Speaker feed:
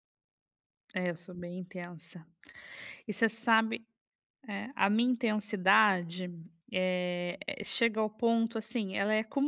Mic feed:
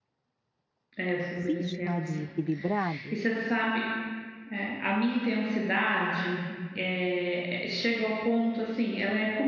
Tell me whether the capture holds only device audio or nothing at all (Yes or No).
No